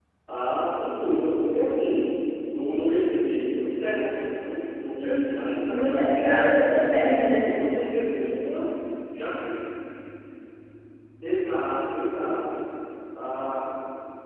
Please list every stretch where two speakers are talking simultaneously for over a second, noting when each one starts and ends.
5.7-7.1

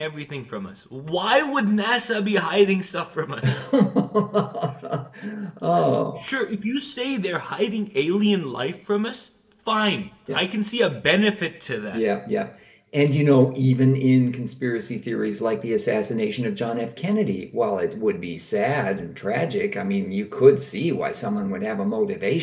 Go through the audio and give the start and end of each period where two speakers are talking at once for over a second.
none

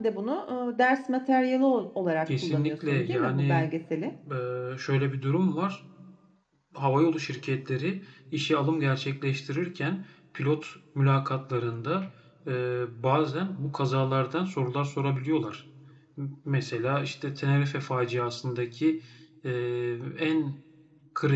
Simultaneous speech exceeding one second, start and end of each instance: 2.3-3.7

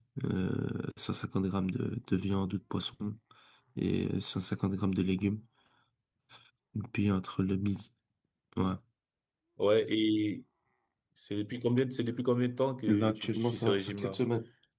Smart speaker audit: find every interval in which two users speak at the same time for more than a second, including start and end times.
12.9-14.2

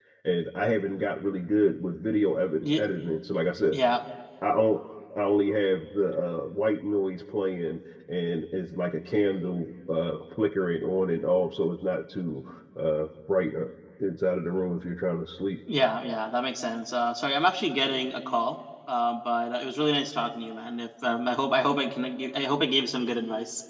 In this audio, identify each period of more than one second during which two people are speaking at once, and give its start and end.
none

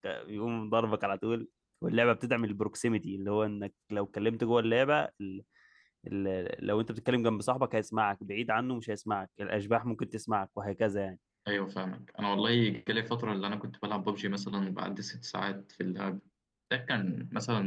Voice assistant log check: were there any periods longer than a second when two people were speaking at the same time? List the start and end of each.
none

